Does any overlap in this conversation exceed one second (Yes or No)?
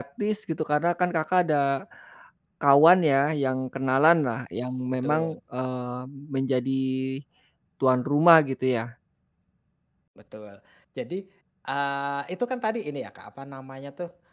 No